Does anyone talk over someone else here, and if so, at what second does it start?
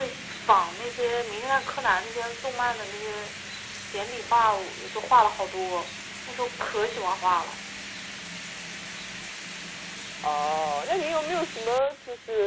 none

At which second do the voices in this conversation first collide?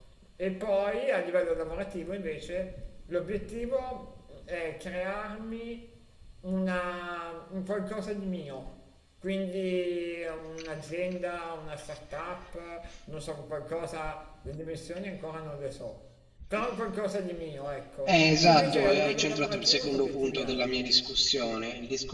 18.1 s

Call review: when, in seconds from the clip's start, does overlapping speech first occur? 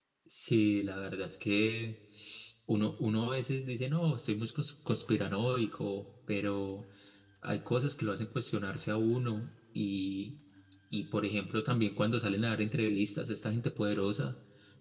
none

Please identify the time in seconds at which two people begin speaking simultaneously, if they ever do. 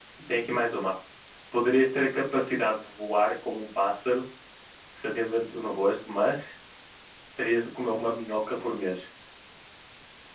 none

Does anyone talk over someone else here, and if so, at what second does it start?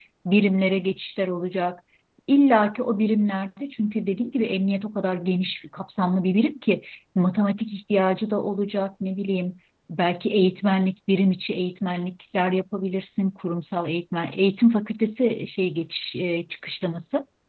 none

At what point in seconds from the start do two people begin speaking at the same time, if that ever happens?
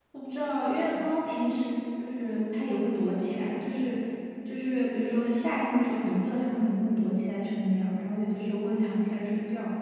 none

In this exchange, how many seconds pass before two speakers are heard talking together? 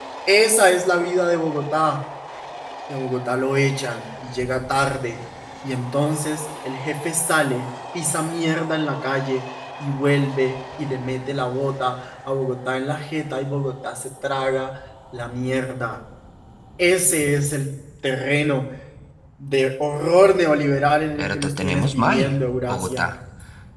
21.2 s

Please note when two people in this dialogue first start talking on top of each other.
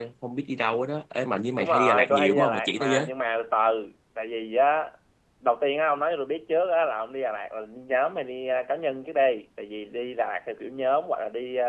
1.6 s

